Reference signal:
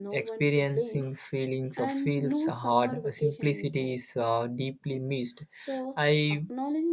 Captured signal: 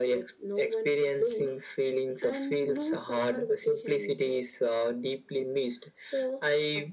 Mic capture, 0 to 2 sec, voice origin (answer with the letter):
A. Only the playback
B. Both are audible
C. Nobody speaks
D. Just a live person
A